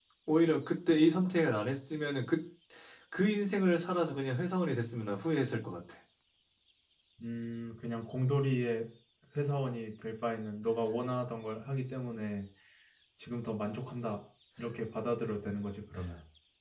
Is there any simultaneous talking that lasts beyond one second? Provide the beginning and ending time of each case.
none

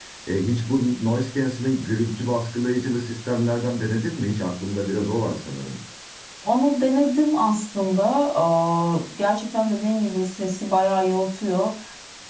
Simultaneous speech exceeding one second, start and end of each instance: none

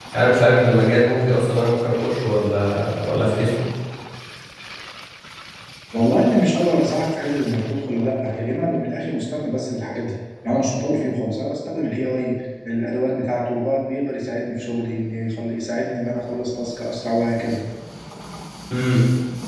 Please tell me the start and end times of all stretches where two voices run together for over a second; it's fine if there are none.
none

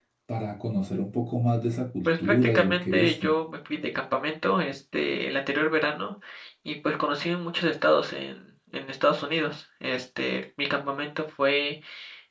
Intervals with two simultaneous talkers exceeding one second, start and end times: 2.0-3.3

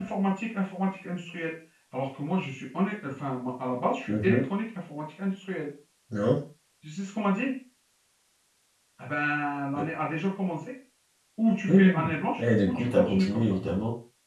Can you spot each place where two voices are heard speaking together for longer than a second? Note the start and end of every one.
11.7-13.4

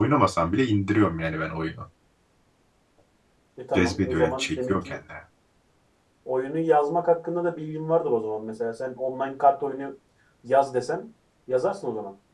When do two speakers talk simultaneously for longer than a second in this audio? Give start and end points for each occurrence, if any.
3.8-5.0

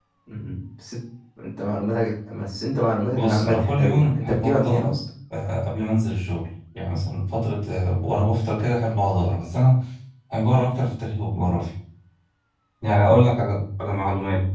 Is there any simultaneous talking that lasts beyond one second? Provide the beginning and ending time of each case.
3.1-4.9

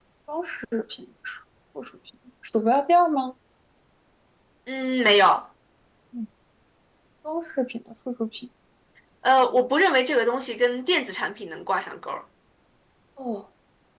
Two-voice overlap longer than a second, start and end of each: none

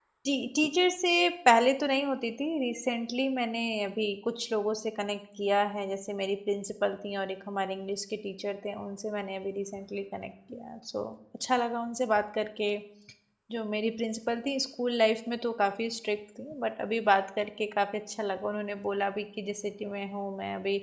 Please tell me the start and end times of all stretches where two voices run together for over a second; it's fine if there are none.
none

